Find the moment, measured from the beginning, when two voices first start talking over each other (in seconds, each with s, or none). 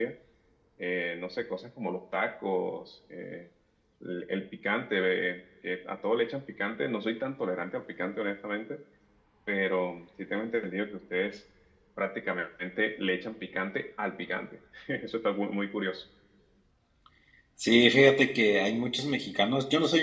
none